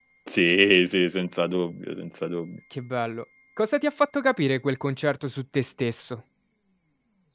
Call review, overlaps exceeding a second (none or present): none